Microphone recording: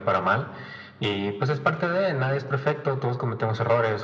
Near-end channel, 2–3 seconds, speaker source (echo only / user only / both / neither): echo only